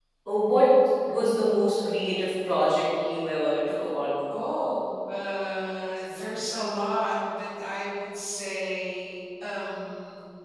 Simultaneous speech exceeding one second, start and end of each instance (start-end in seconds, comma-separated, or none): none